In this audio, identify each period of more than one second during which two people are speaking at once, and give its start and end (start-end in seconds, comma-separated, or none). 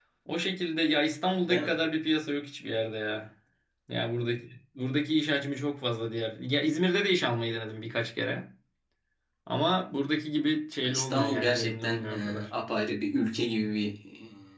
10.8-12.5